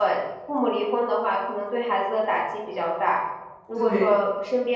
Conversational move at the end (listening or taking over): listening